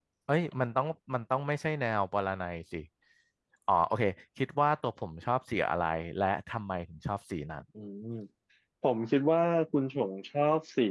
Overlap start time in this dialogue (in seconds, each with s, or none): none